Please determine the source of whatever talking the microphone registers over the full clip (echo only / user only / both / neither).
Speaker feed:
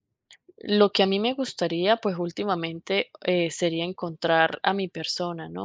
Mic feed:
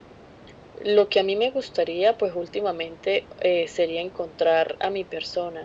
echo only